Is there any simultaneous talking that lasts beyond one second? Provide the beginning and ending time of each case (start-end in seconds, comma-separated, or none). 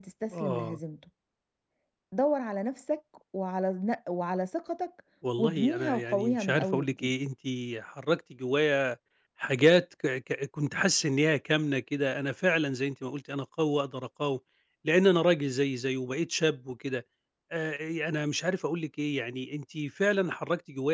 5.4-7.1